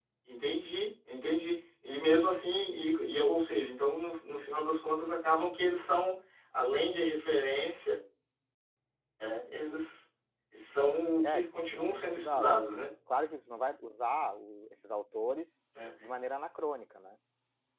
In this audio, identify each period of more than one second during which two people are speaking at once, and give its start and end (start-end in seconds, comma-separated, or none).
11.2-12.6